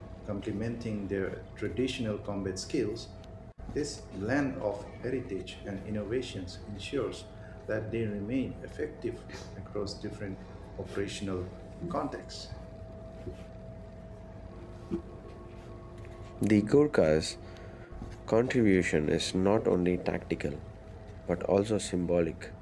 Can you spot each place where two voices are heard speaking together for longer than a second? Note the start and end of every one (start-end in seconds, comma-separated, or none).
none